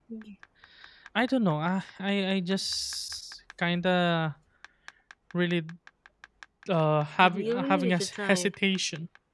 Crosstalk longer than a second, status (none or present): present